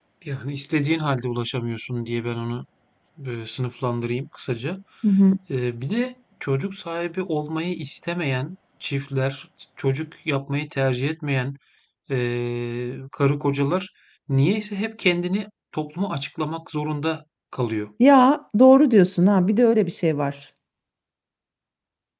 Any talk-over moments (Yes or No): No